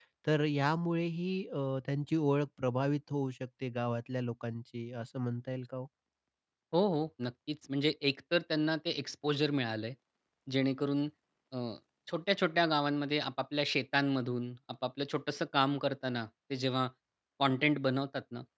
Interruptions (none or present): none